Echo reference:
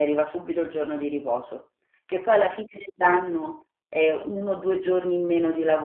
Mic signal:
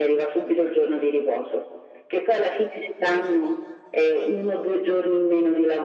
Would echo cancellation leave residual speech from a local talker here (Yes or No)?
No